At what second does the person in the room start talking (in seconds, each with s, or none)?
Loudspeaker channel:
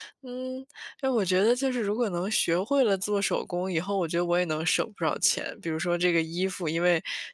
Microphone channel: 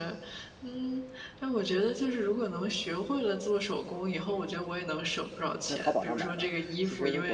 5.7 s